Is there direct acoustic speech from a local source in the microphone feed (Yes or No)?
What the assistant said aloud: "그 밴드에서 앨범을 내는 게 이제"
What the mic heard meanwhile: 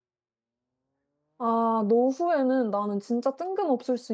Yes